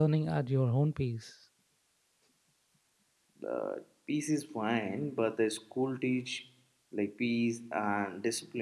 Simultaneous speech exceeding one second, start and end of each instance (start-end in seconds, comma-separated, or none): none